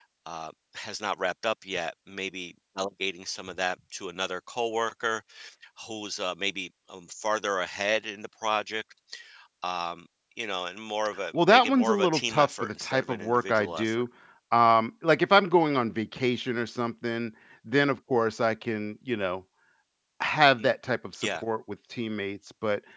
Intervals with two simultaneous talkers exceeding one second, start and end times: 11.3-14.1

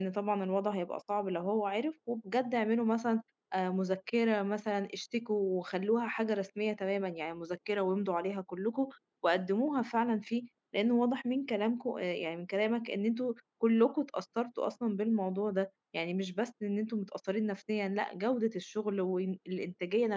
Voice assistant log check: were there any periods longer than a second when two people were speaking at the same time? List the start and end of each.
none

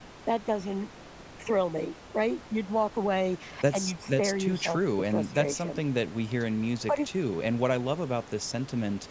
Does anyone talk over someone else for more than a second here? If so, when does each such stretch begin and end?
3.7-5.8

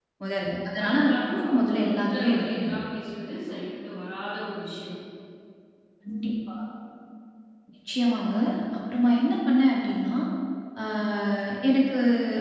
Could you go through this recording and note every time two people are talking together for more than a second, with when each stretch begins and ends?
0.8-2.8

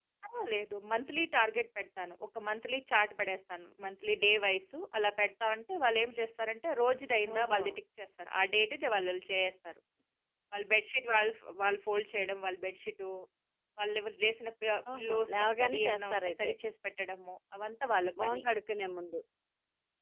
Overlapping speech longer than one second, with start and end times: 14.9-16.5

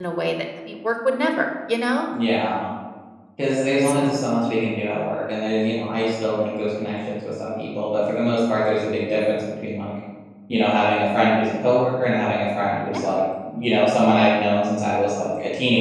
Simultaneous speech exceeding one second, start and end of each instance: none

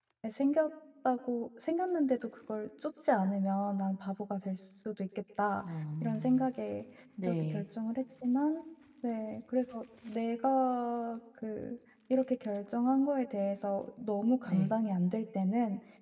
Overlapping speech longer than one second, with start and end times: none

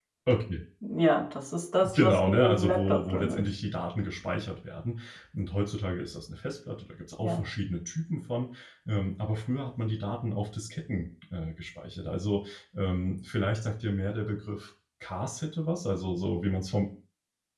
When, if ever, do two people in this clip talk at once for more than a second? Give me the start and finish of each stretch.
1.8-3.5

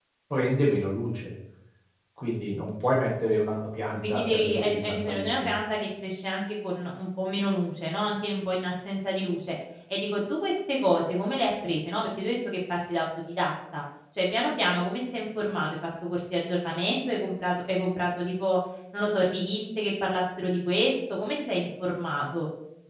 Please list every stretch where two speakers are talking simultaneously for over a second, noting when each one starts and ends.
4.1-5.5

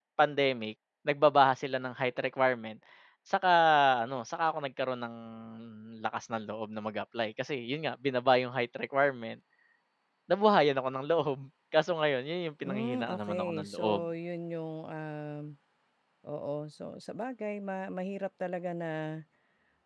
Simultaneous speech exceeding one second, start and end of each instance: 12.6-14.0

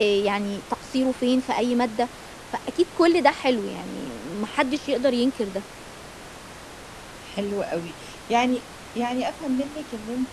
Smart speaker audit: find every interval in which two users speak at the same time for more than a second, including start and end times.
none

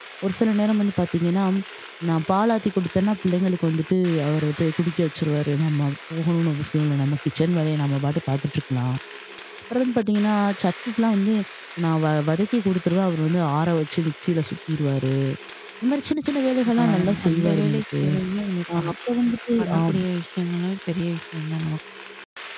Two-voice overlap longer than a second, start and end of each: 16.6-18.0

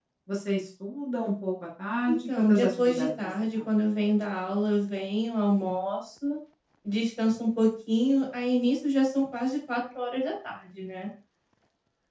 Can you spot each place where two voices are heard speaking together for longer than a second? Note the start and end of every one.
2.0-3.6

